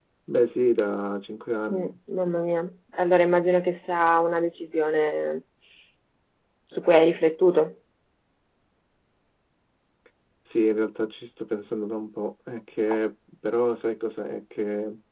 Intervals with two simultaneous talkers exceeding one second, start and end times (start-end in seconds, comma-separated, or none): none